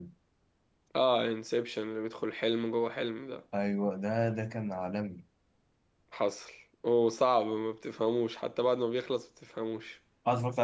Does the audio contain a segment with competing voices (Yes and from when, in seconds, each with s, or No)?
No